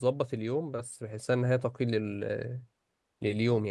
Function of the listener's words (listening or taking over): taking over